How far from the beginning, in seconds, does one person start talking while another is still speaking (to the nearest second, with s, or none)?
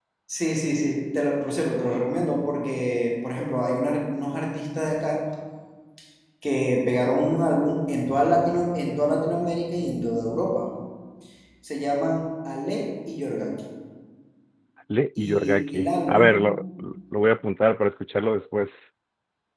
15 s